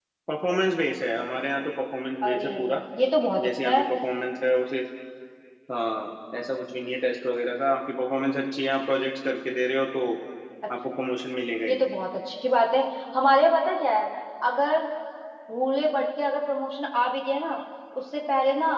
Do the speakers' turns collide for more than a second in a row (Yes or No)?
No